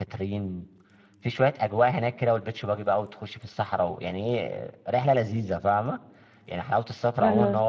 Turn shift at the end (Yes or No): No